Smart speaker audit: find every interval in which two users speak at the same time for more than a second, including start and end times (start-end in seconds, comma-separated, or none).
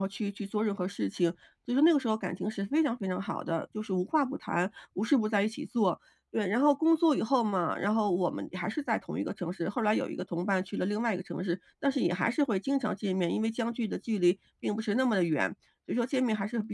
none